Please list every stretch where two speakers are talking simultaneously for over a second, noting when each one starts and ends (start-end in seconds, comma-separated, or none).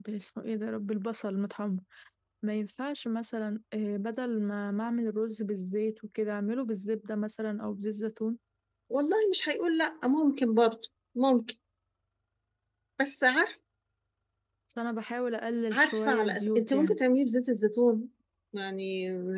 15.7-17.0